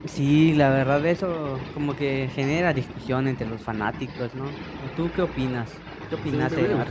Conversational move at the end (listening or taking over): taking over